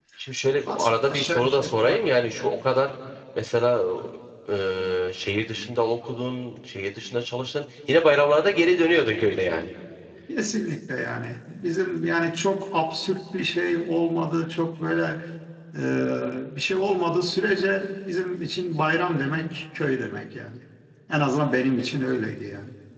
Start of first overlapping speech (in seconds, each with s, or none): 0.7 s